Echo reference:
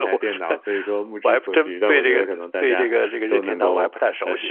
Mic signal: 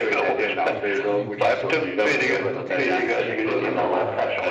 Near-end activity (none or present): present